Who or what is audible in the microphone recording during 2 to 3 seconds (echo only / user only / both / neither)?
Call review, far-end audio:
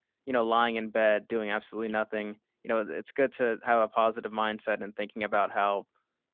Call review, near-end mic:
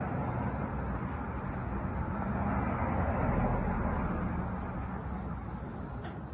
neither